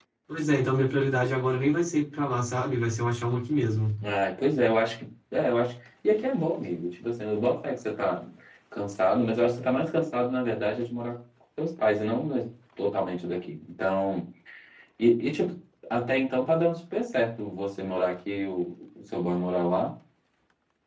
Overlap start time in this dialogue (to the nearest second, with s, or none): none